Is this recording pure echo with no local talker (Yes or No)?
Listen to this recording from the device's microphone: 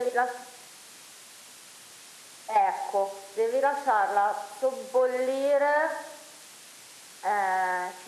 Yes